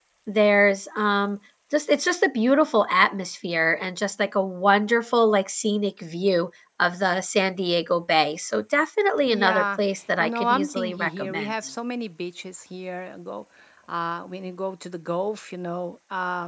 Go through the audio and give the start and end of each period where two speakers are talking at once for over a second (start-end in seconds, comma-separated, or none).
10.2-11.5